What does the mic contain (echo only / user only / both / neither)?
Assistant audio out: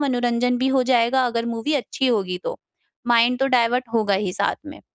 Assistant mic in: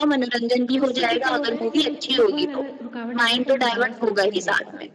both